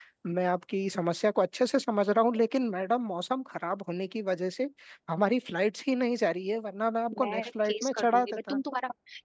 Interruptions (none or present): present